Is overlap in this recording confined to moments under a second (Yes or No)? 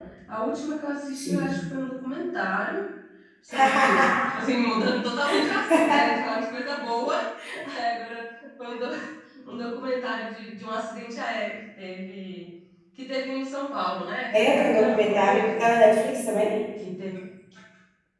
No